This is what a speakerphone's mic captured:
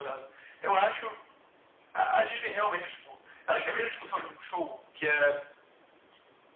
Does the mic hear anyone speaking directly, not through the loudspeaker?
No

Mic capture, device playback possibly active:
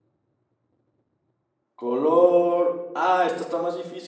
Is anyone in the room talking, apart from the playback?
Yes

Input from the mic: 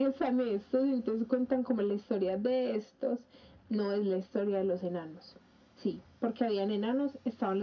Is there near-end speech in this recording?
No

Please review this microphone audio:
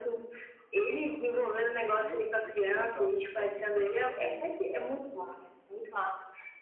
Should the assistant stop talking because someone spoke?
Yes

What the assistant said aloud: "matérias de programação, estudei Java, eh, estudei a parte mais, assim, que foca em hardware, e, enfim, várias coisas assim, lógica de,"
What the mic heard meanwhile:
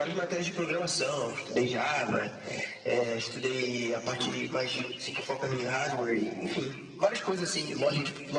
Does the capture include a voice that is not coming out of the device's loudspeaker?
No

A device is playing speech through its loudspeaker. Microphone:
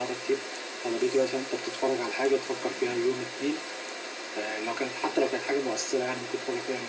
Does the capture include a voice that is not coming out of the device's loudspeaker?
No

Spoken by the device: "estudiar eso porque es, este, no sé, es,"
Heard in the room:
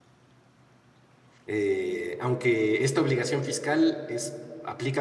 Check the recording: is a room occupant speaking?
Yes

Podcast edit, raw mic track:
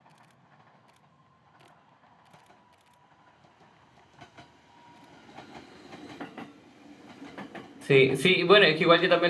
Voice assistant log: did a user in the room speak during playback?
Yes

